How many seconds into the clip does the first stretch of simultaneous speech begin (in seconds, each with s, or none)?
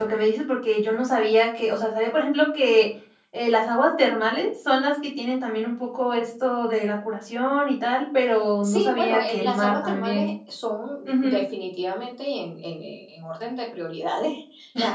8.6 s